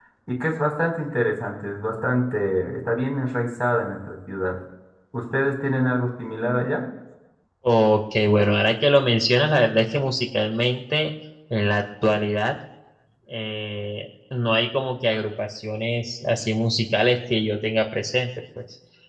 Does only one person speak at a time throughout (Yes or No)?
Yes